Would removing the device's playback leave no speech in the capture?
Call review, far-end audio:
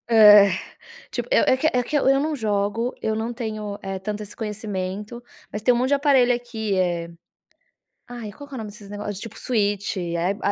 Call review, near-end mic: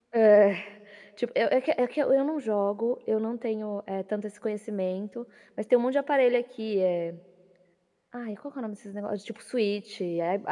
Yes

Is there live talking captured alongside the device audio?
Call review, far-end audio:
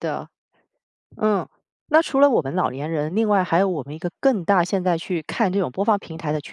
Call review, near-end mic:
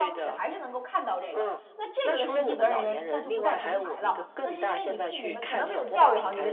Yes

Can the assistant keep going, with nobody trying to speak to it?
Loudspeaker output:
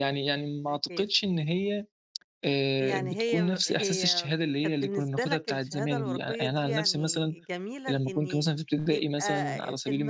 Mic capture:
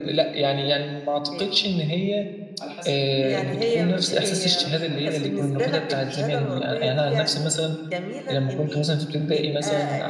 No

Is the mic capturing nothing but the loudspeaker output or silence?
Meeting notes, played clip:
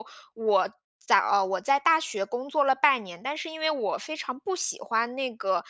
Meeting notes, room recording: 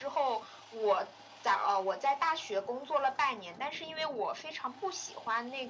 Yes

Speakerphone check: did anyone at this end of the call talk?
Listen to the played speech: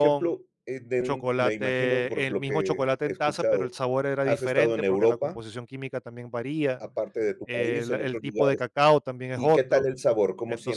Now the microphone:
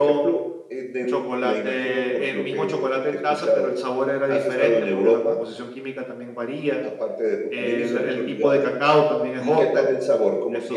No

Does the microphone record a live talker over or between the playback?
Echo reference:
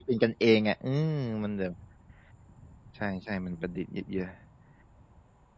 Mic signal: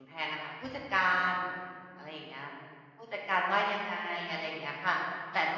Yes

